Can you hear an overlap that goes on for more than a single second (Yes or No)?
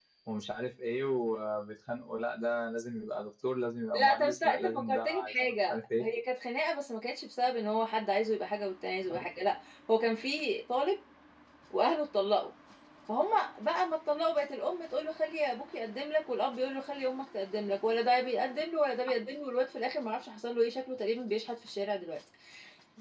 Yes